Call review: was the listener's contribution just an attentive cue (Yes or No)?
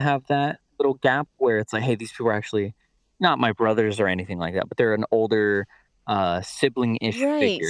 No